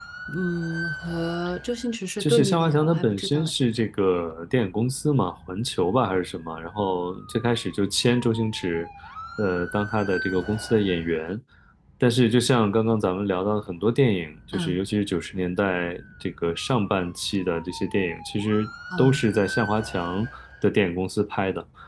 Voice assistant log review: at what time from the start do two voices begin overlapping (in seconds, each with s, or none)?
2.2 s